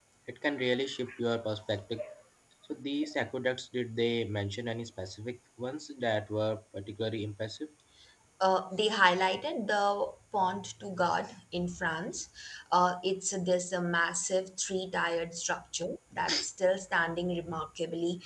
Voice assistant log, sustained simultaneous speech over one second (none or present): none